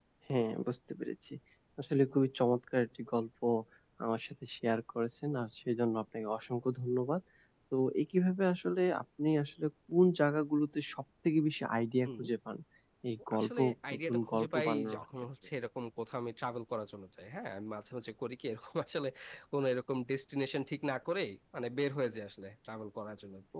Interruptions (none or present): present